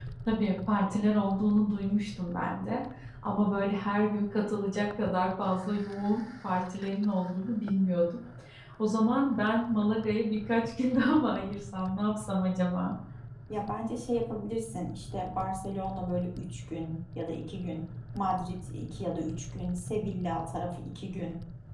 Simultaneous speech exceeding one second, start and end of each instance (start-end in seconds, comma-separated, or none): none